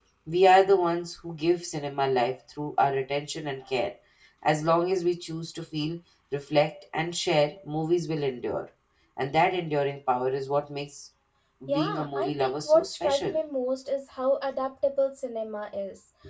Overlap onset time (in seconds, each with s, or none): 11.7 s